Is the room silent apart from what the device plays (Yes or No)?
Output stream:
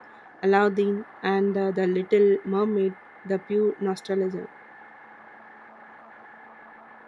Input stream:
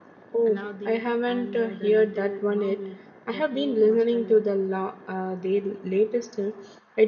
No